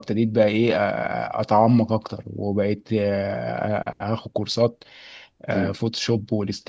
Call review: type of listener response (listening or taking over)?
listening